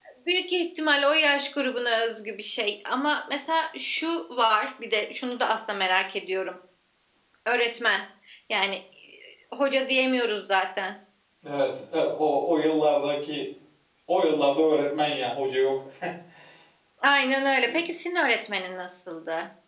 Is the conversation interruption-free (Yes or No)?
Yes